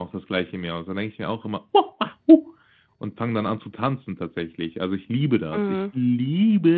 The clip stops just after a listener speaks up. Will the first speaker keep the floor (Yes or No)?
Yes